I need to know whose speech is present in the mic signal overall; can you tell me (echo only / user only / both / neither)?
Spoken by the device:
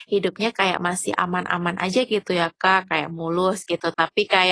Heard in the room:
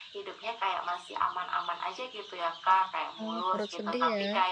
both